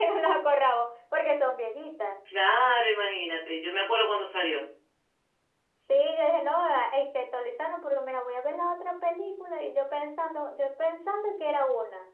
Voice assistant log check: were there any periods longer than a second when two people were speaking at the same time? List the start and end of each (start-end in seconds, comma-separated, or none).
none